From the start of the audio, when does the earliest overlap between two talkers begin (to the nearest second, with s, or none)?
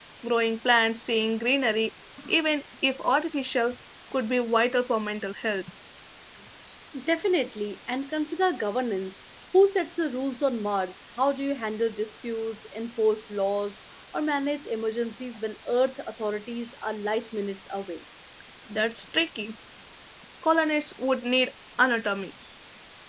none